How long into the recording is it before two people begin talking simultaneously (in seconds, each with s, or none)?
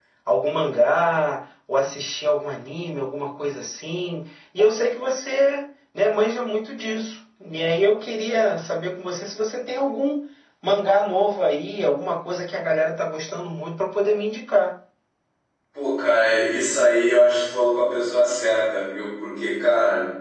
none